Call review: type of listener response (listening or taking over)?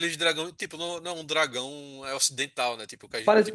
taking over